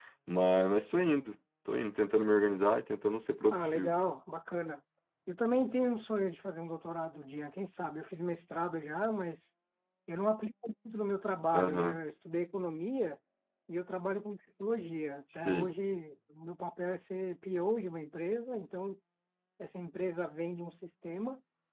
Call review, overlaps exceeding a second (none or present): none